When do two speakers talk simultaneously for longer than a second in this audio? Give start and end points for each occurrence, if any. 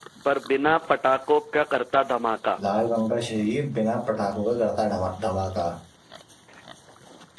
none

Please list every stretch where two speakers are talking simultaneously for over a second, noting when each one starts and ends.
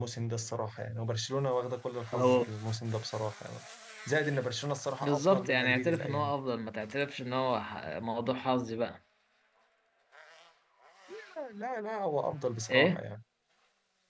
5.0-6.3

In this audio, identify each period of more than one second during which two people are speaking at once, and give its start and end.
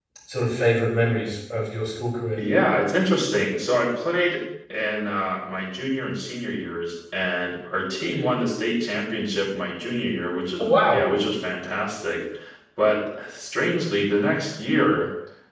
none

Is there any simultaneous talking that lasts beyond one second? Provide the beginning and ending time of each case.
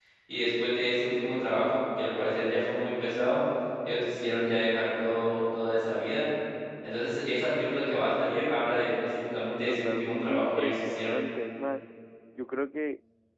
9.3-11.2

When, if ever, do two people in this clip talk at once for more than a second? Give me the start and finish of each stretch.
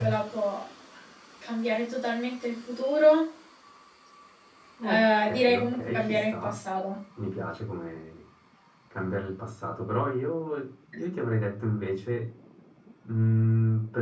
4.8-6.5

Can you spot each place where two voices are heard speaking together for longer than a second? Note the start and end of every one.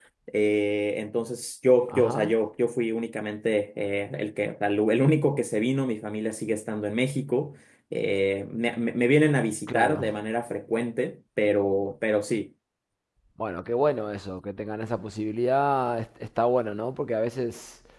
none

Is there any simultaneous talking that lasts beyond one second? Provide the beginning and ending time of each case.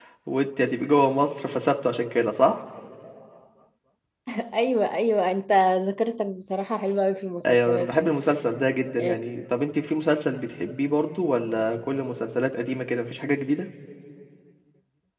none

